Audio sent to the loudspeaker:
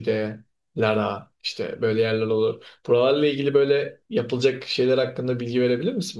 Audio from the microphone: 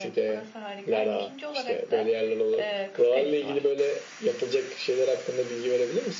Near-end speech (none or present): present